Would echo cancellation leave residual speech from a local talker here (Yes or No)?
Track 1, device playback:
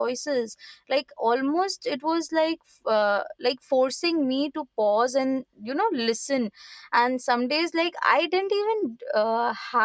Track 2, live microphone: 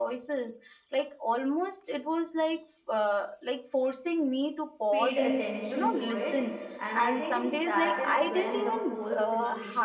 Yes